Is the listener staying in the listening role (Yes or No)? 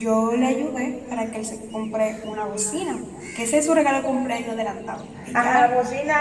No